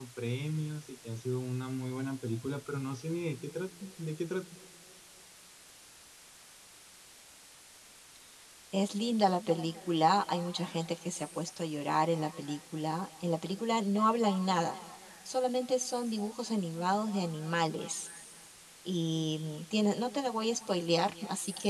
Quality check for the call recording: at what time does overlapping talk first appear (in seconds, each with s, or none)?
none